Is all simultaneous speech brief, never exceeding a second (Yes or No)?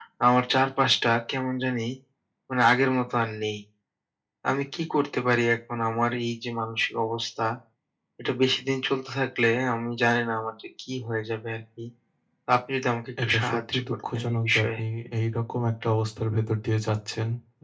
No